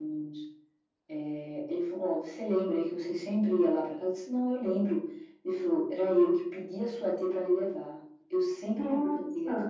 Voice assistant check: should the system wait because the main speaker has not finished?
Yes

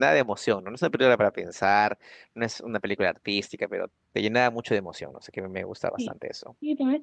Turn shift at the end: Yes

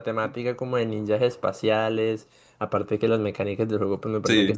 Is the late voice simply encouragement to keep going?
No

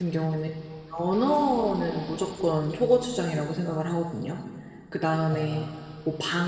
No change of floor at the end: Yes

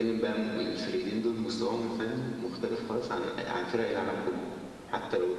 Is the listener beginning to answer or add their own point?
No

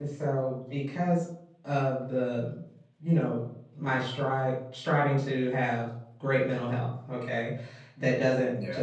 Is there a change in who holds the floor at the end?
No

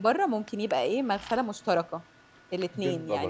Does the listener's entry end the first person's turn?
No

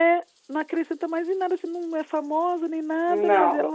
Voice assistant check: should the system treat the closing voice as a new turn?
No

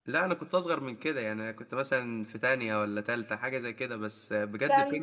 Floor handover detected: Yes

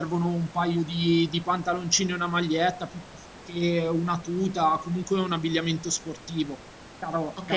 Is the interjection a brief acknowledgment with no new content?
No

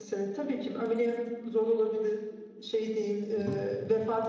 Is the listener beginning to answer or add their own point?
No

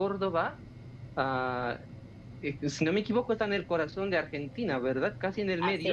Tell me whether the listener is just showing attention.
No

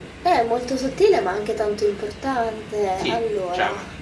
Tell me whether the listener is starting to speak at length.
Yes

